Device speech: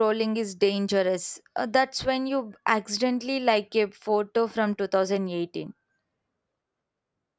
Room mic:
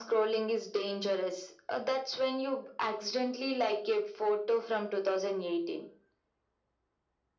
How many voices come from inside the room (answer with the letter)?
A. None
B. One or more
A